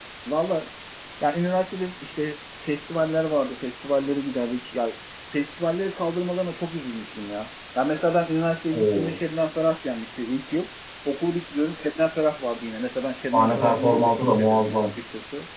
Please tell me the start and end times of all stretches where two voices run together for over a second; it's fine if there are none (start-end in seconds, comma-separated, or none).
13.3-14.9